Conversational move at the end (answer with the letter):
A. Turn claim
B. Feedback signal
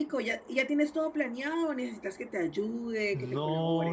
A